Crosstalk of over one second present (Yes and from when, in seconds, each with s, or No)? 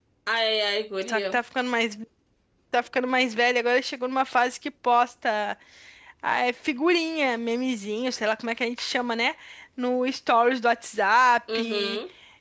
No